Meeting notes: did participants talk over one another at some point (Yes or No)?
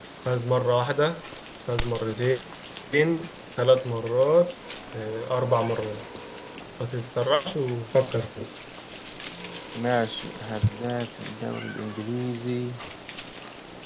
No